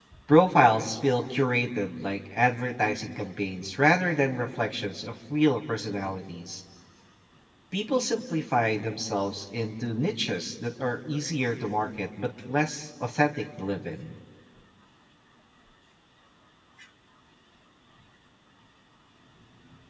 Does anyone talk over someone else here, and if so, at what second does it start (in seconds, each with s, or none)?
none